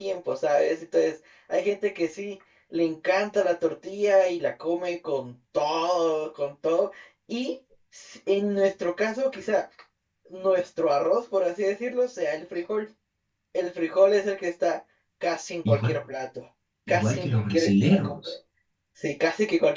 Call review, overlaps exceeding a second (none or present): present